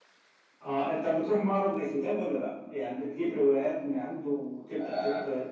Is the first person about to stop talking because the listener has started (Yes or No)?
Yes